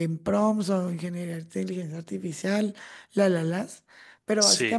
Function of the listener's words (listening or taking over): listening